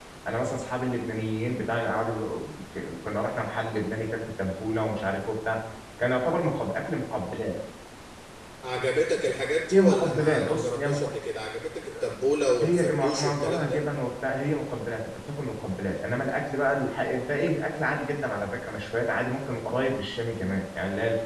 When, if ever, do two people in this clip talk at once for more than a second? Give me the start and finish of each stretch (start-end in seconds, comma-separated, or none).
9.7-11.1, 12.6-13.8